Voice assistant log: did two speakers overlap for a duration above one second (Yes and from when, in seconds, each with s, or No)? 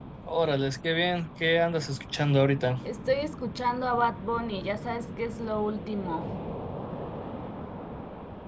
No